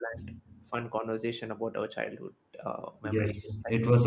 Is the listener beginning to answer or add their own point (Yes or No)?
Yes